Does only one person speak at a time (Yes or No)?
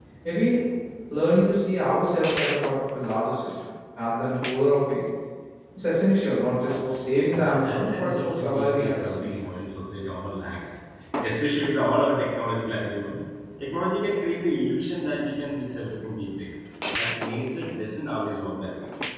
No